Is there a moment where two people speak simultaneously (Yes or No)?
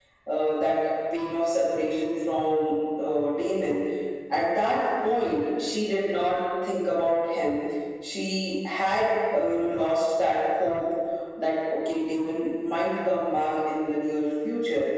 No